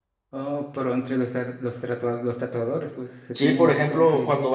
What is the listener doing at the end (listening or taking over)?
taking over